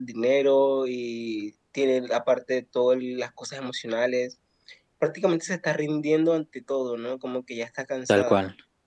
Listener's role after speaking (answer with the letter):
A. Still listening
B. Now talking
B